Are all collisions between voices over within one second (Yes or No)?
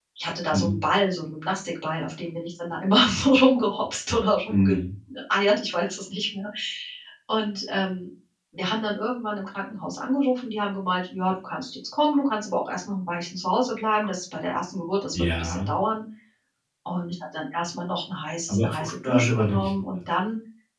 No